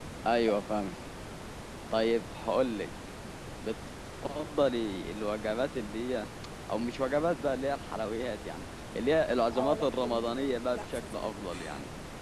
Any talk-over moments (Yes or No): Yes